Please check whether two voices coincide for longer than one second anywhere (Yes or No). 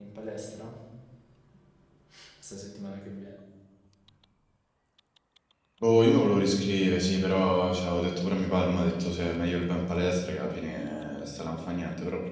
No